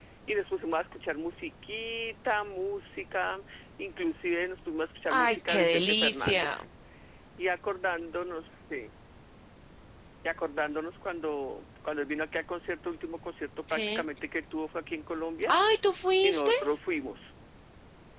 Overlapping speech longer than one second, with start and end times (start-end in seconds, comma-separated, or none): 5.1-6.6